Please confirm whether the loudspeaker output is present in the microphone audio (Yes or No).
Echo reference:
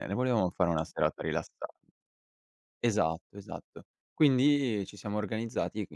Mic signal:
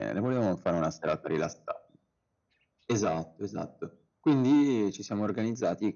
Yes